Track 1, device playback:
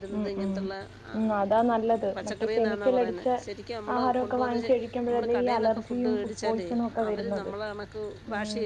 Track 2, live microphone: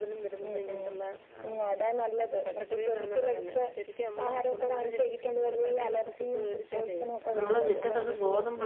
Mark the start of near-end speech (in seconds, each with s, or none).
7.4 s